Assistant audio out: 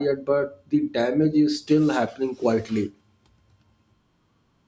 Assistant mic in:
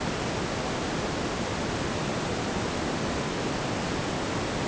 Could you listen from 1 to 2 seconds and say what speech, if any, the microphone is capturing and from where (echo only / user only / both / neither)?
neither